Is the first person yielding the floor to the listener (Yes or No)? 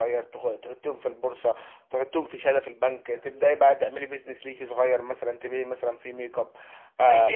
Yes